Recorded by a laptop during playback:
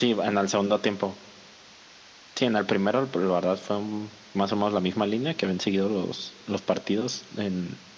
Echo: present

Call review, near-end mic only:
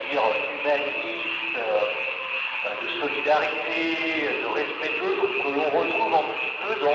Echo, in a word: present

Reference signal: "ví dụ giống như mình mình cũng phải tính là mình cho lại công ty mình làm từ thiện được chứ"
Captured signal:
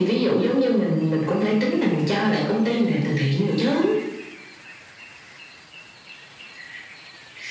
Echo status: present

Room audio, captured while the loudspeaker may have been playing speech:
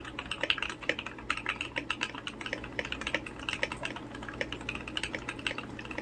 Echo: none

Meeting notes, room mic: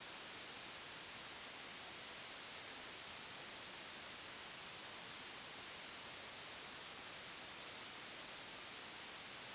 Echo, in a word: none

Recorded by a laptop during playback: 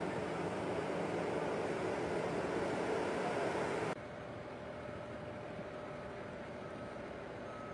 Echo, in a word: none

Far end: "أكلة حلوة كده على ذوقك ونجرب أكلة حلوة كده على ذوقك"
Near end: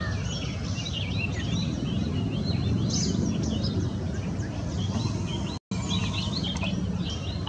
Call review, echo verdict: none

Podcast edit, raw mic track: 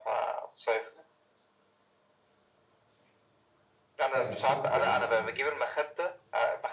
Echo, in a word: present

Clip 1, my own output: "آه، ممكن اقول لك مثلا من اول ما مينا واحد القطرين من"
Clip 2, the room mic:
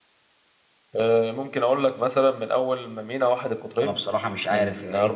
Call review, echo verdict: present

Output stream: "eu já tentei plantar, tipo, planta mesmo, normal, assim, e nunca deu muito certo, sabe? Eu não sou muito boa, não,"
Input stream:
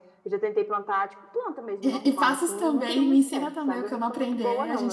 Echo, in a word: present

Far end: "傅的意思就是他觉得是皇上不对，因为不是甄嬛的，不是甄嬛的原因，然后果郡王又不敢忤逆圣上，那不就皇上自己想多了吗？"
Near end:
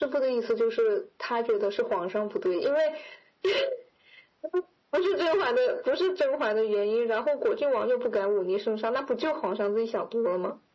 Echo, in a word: present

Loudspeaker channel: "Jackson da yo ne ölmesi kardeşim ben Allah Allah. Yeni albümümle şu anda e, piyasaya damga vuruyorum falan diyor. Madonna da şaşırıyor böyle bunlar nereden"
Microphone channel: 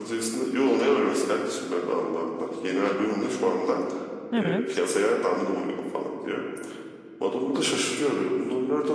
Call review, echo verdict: present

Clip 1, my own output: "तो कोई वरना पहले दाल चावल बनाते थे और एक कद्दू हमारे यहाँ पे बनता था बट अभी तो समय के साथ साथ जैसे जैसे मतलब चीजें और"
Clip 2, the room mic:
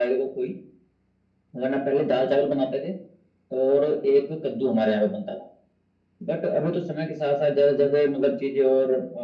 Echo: present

